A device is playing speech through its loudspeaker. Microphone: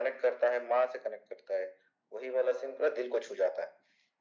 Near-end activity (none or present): none